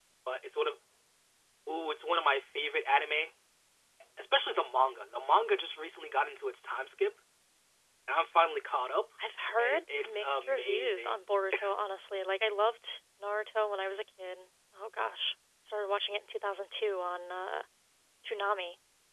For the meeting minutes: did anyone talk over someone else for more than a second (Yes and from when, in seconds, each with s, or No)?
Yes, from 9.6 s